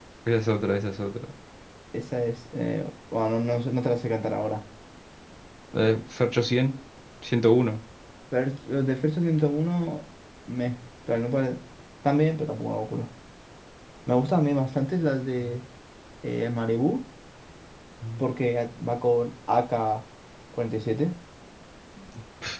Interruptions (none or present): none